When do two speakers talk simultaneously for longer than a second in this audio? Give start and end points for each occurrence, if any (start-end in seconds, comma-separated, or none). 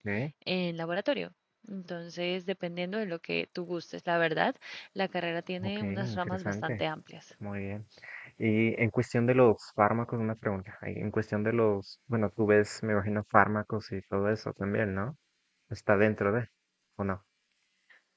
5.6-6.8